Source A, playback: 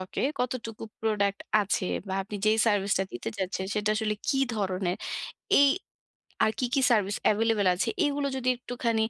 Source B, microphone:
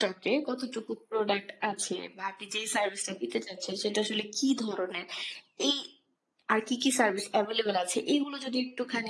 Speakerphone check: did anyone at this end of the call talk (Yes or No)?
No